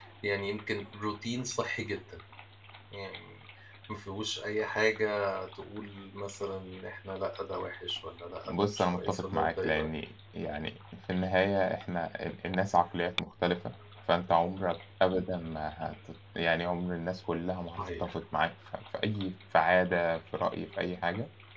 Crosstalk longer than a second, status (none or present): present